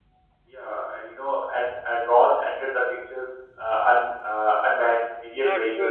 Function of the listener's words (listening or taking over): taking over